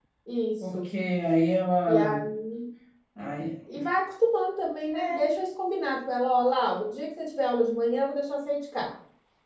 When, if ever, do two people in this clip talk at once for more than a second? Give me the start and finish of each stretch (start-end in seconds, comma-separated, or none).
none